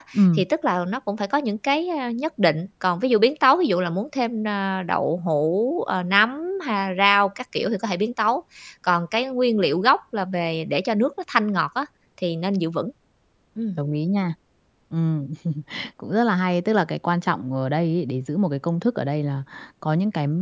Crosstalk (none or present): none